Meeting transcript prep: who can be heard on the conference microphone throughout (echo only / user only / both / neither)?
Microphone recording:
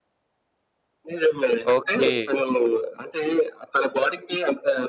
both